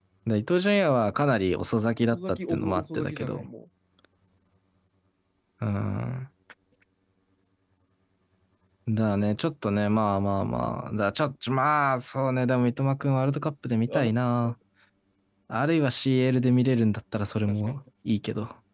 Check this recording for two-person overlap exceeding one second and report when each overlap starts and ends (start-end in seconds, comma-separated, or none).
2.1-3.4